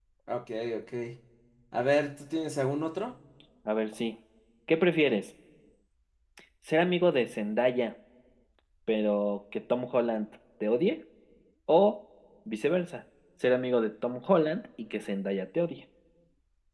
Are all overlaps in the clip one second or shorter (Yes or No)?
Yes